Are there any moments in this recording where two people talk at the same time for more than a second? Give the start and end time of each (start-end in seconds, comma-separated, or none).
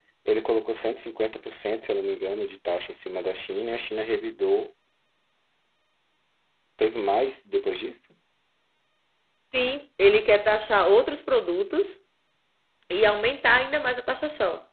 none